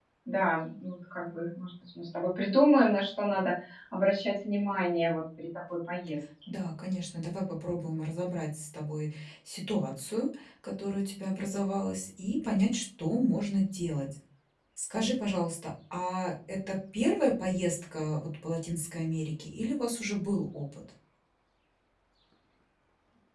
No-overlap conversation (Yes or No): Yes